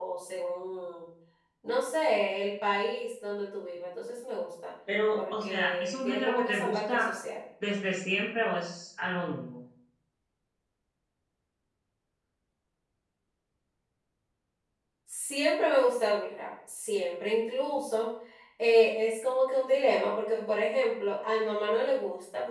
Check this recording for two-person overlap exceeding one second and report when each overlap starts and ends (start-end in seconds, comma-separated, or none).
5.2-7.1